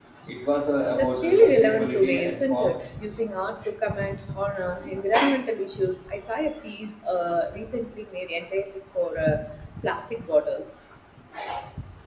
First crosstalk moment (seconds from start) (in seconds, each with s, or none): 1.0 s